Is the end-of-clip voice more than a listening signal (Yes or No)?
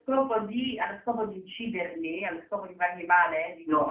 Yes